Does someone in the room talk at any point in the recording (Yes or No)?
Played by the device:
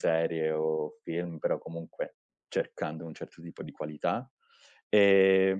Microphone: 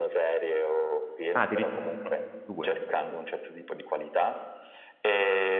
Yes